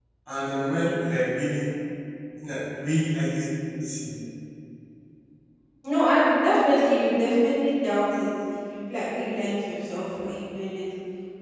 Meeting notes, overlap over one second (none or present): none